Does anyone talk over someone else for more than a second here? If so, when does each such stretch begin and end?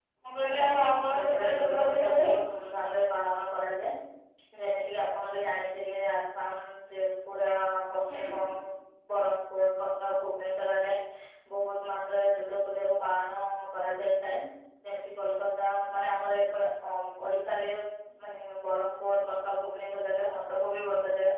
0.6-2.3

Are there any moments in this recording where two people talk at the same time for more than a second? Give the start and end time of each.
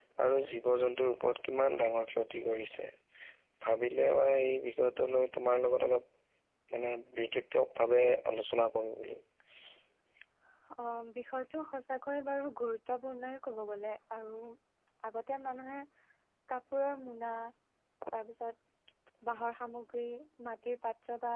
none

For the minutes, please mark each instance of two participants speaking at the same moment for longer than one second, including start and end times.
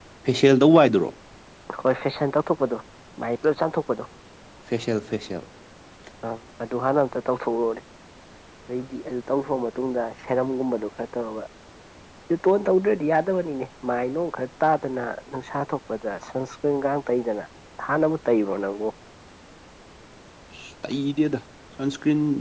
none

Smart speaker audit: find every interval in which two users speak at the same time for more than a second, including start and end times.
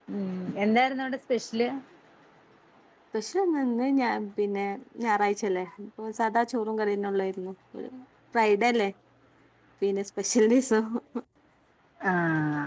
none

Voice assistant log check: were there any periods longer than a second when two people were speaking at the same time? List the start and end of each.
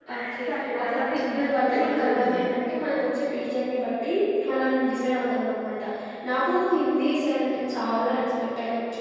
0.8-2.4

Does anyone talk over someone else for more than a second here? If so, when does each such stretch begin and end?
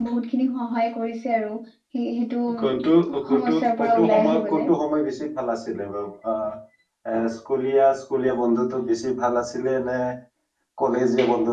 3.3-4.7

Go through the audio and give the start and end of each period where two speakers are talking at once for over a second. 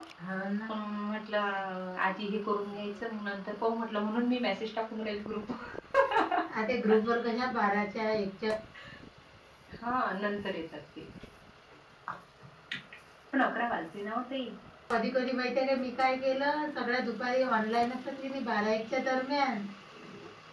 none

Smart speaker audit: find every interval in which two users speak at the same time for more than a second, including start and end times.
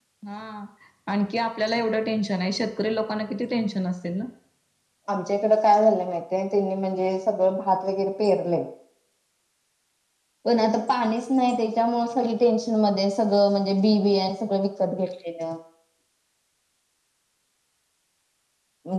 none

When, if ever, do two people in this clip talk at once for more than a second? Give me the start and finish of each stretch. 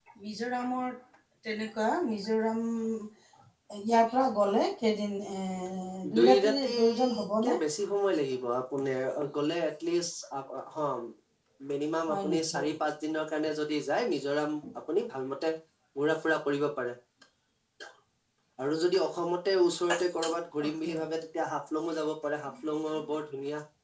6.2-7.6

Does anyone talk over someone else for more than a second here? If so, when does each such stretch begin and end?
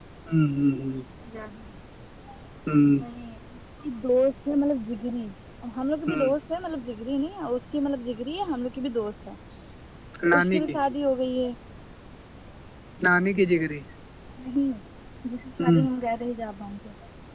none

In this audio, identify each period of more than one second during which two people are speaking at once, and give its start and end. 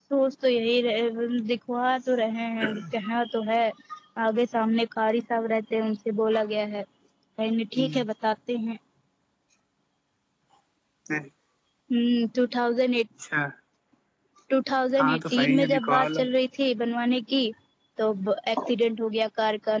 15.0-16.2

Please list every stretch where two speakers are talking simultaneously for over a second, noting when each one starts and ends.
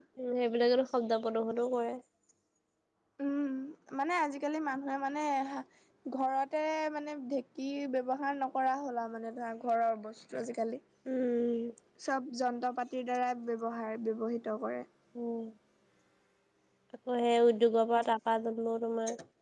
none

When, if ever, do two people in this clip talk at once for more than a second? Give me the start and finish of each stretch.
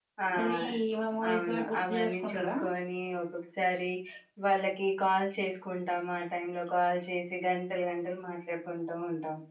1.3-2.5

